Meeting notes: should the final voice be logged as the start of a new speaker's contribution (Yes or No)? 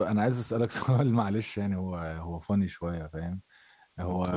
No